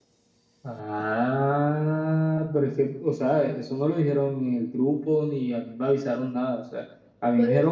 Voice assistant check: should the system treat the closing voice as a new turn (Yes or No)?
No